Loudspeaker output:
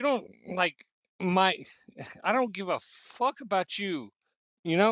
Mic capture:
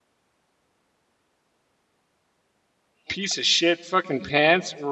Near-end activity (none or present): present